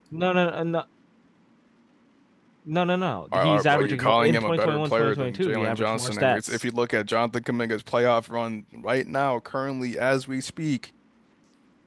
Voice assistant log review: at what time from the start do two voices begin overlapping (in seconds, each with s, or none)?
3.3 s